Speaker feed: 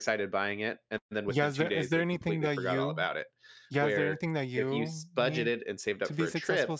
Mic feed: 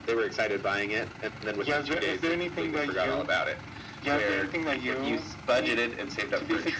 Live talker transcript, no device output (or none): none